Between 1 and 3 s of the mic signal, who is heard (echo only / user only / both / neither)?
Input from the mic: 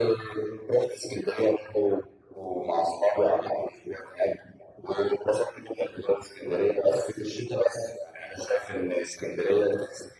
echo only